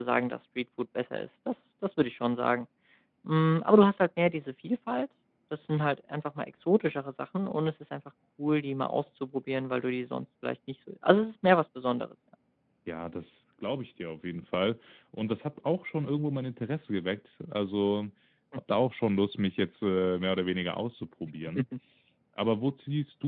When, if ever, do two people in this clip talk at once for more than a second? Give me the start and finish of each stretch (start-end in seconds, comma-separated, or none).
none